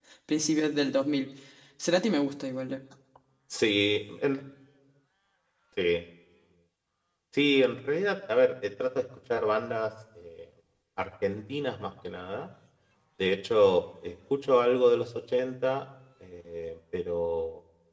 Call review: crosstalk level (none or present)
none